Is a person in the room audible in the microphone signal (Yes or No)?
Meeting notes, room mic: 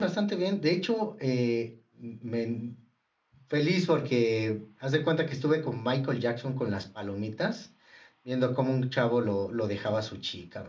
Yes